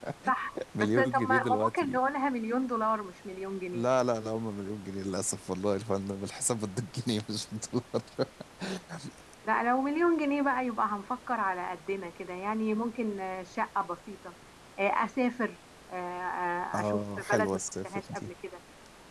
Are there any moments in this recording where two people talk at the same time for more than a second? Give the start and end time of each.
0.8-2.0, 16.8-18.3

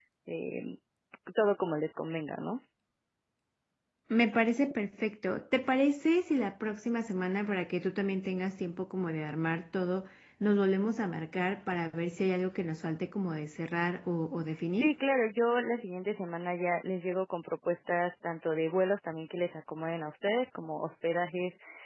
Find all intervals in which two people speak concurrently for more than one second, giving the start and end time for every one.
none

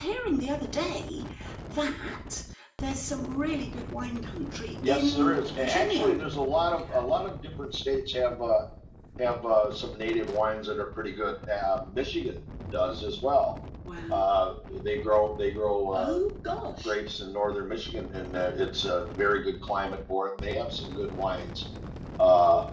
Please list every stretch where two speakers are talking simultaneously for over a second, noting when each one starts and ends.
4.9-6.2

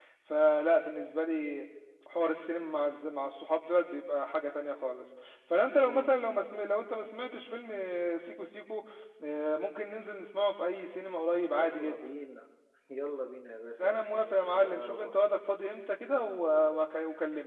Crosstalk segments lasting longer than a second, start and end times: 13.8-15.1

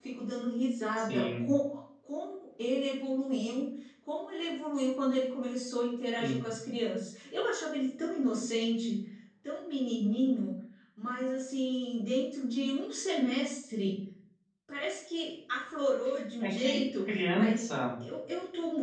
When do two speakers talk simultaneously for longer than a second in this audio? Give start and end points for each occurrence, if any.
16.4-17.7

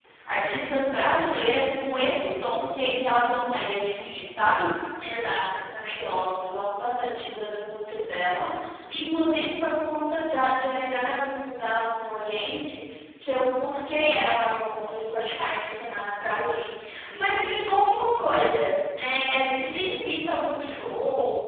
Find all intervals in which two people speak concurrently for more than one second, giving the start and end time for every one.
none

